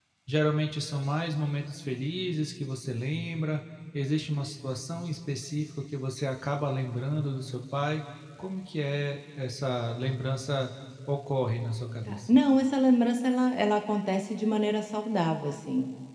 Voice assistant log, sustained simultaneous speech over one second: none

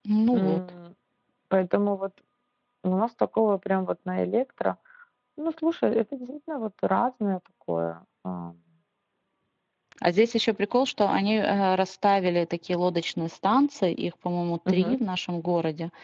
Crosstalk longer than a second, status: none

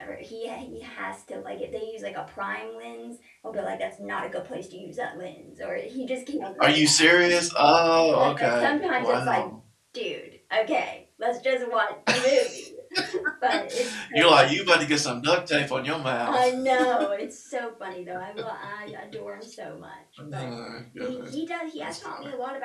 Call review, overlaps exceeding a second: present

